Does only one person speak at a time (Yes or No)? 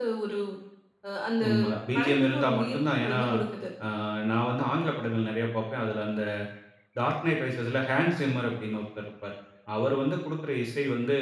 No